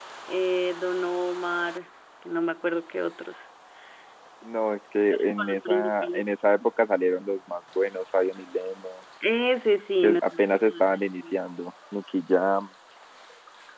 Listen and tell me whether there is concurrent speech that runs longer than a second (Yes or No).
Yes